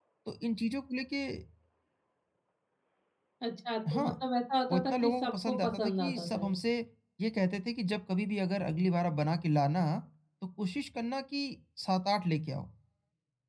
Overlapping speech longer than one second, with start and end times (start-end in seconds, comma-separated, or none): 4.7-6.5